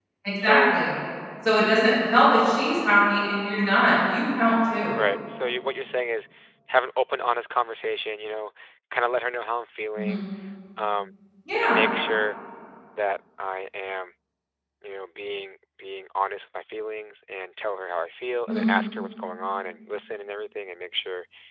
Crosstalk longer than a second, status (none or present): none